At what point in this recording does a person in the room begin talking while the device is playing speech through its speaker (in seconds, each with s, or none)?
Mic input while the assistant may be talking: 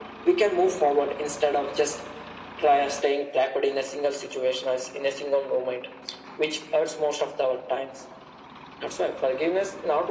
none